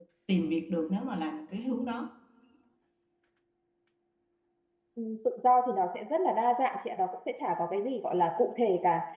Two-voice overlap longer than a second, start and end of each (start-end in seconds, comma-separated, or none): none